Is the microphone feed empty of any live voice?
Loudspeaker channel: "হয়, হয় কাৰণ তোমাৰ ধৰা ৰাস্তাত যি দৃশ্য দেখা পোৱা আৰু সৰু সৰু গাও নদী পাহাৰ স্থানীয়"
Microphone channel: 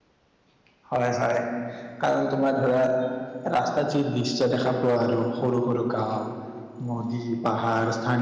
Yes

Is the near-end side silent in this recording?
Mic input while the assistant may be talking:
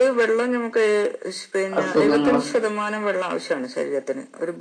No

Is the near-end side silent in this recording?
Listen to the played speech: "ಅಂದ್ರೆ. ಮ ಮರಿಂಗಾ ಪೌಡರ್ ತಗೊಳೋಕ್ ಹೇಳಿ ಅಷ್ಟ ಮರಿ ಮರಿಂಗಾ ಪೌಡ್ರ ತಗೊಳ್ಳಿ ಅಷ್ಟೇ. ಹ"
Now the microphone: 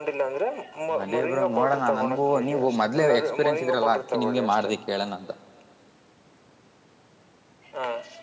No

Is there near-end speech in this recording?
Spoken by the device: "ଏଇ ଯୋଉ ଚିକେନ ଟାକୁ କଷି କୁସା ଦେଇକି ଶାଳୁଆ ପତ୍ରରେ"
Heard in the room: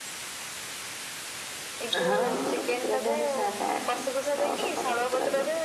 Yes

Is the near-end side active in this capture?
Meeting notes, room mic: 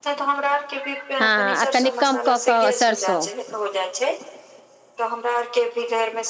Yes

